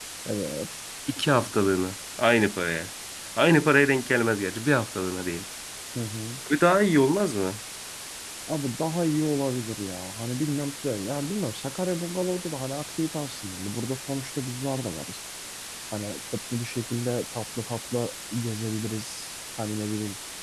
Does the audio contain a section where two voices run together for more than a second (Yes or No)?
No